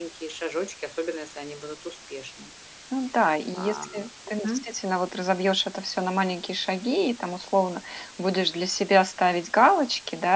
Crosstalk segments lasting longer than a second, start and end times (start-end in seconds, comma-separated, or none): none